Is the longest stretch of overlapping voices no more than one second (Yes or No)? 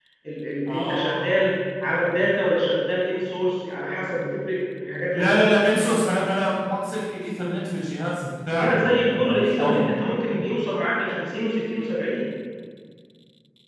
No